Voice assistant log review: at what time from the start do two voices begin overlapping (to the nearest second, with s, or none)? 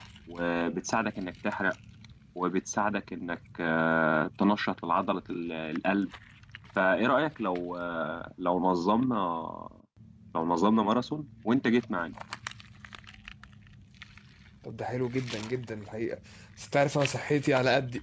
none